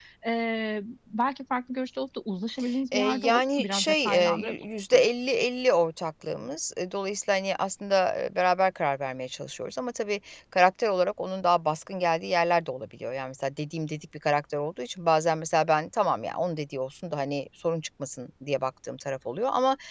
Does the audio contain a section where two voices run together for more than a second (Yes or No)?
Yes